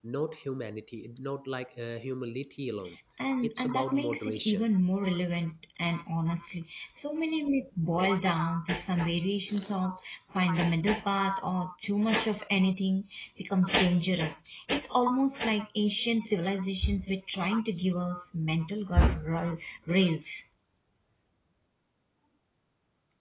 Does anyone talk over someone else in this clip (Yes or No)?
Yes